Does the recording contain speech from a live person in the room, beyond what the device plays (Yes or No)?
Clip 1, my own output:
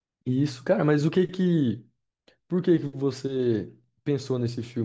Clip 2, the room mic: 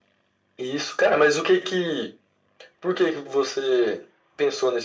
No